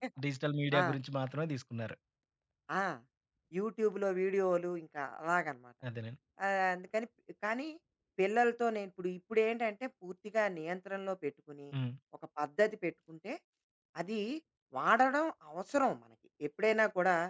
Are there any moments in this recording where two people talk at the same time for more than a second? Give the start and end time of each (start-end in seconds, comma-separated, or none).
none